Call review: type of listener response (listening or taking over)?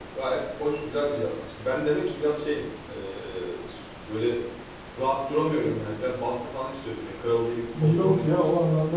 taking over